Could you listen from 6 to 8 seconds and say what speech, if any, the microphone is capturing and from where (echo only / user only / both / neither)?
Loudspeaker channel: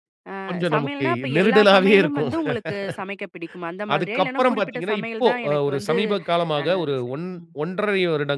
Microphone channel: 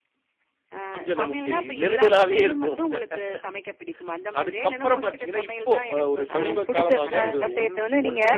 both